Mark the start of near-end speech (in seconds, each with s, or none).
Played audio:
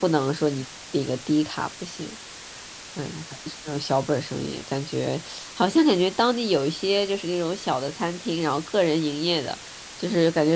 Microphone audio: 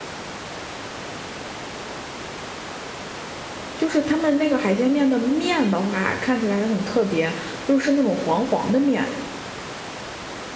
3.8 s